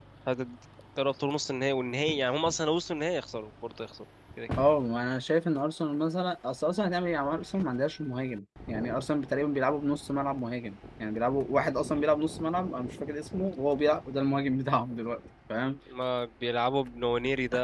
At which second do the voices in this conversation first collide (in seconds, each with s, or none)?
none